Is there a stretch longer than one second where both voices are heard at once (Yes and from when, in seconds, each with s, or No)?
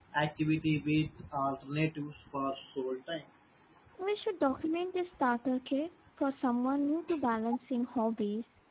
No